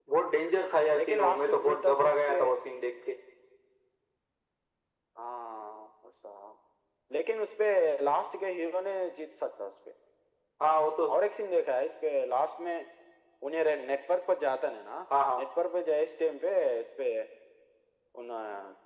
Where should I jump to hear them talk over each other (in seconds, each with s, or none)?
0.9 s